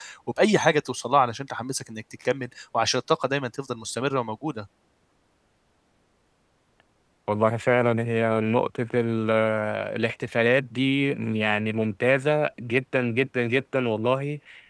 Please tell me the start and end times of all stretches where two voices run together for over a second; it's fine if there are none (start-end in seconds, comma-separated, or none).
none